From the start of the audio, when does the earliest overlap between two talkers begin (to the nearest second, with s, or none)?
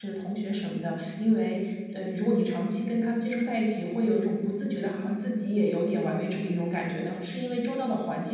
none